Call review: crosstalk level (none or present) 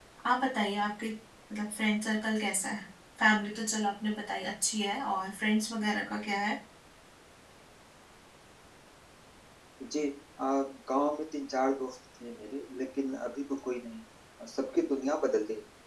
none